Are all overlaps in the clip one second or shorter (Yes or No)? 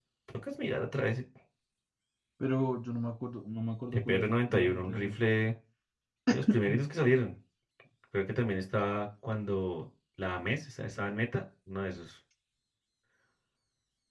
No